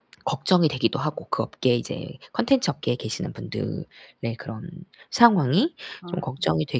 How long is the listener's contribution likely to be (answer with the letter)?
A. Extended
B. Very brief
B